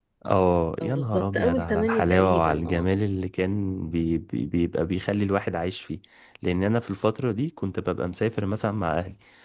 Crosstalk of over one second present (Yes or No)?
Yes